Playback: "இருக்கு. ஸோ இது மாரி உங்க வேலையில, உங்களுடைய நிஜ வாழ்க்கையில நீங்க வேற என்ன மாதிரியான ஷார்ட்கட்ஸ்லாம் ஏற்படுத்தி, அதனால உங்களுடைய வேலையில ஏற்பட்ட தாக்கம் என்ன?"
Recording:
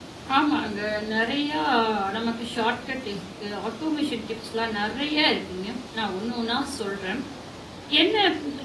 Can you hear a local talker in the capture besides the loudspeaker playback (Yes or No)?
Yes